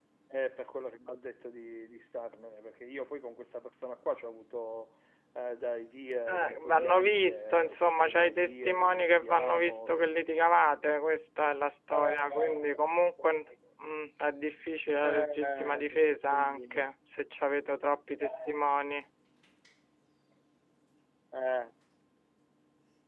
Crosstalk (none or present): present